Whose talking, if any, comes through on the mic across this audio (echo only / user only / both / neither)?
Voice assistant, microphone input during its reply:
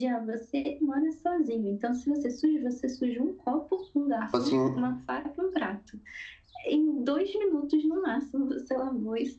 both